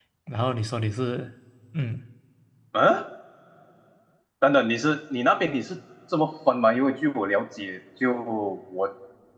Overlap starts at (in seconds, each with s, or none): none